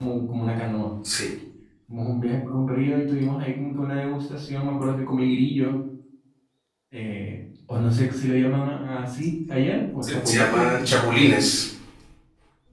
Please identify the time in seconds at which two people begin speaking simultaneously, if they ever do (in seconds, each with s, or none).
10.0 s